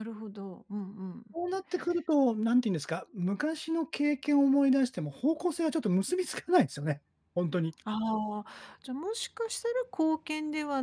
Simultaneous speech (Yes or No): No